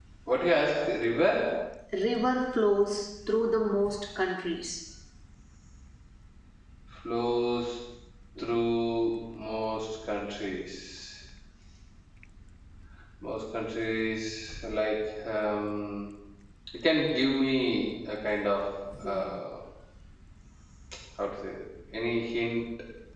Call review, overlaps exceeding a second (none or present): none